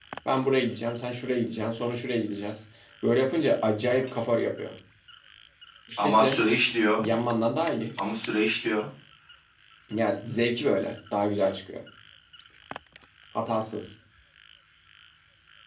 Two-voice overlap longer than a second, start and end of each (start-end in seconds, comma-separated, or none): none